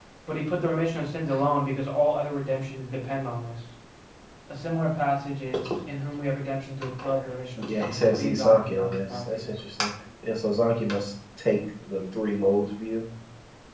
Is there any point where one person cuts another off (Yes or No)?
Yes